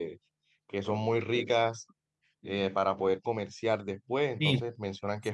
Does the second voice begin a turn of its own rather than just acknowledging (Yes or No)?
Yes